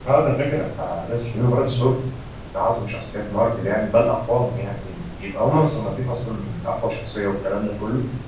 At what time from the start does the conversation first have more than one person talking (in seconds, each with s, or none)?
none